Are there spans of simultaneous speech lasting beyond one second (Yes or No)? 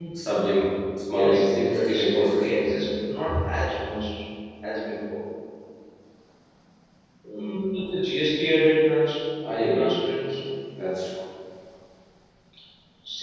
Yes